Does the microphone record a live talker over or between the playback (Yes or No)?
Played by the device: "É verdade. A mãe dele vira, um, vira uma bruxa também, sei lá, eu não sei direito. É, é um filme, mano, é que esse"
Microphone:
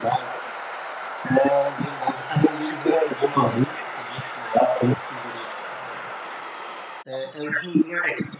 No